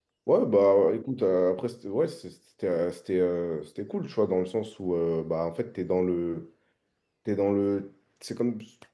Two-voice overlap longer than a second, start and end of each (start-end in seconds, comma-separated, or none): none